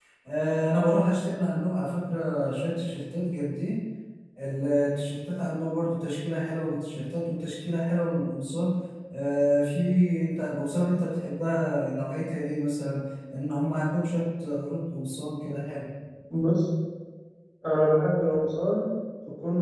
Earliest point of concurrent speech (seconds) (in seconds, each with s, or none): none